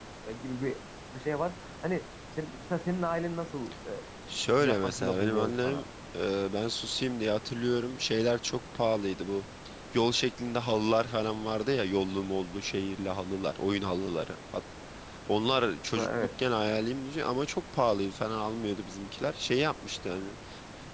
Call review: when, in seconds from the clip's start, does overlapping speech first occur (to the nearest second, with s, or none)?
5 s